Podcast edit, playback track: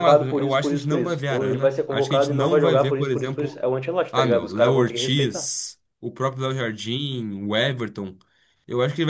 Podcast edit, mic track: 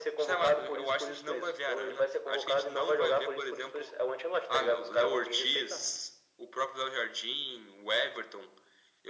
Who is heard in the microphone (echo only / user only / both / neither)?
echo only